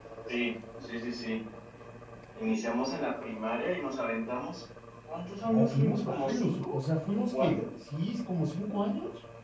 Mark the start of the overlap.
5.4 s

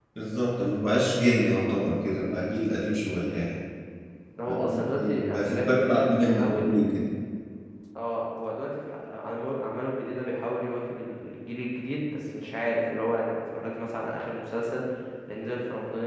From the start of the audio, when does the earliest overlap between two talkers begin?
4.5 s

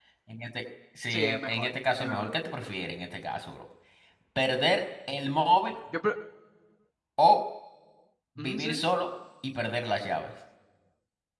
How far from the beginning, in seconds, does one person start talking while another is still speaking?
1.1 s

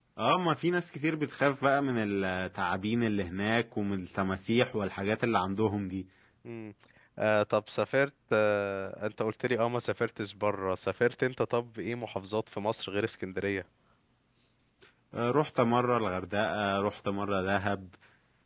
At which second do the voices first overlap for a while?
none

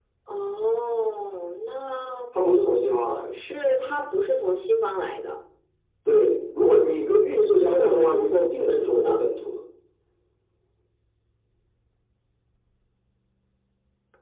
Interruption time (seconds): 7.6 s

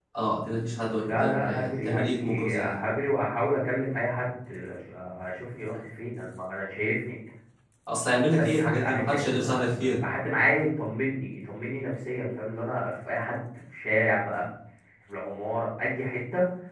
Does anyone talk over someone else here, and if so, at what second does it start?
1.1 s

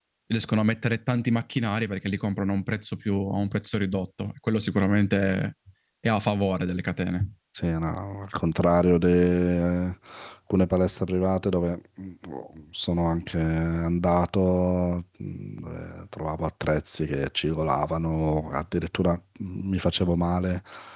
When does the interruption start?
none

